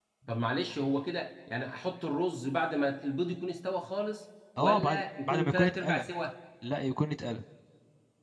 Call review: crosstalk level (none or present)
present